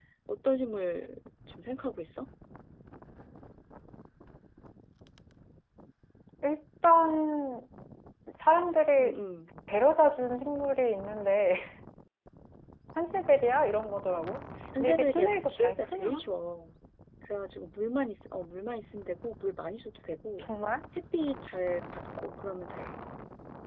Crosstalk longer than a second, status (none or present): present